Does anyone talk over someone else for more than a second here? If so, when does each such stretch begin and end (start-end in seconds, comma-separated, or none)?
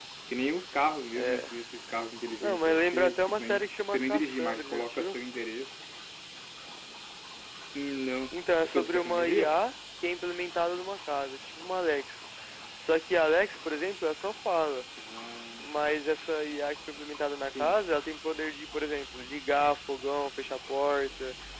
2.4-5.2, 8.3-9.5